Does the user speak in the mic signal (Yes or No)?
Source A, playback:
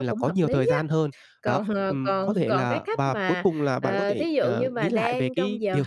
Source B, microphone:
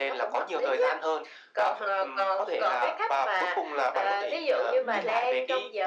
Yes